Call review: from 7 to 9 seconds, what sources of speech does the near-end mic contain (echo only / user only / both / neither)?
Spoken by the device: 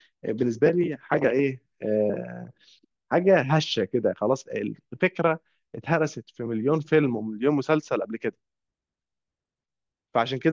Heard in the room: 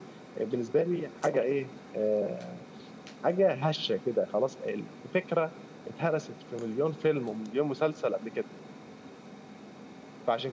echo only